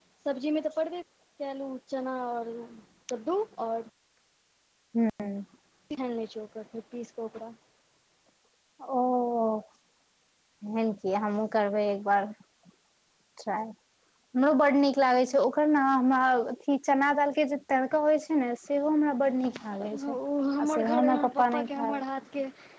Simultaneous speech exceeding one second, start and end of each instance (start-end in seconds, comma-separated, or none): 20.6-22.0